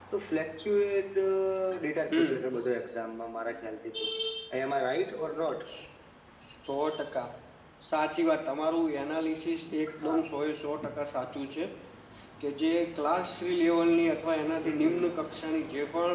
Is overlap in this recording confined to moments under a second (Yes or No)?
Yes